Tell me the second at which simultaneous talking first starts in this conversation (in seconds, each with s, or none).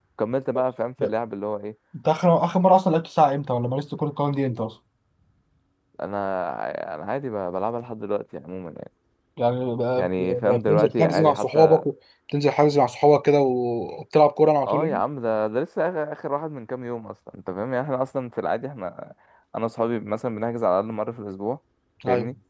10.0 s